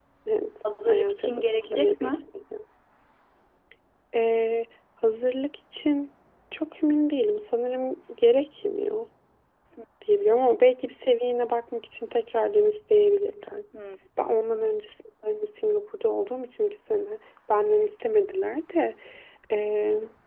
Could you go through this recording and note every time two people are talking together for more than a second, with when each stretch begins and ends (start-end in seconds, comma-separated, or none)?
0.9-2.2